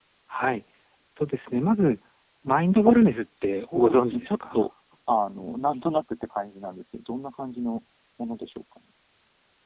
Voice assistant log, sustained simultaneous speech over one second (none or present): present